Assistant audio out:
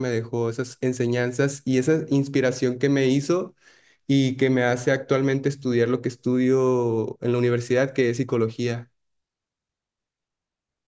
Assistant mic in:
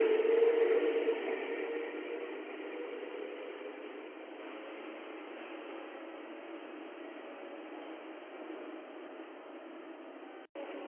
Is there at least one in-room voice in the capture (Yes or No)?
No